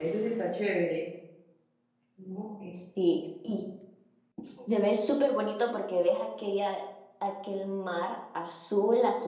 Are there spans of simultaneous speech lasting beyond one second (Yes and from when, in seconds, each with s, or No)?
No